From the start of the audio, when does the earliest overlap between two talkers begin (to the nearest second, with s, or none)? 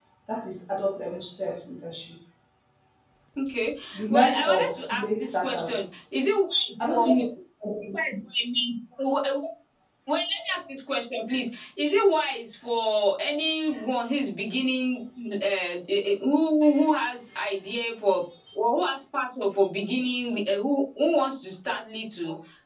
4 s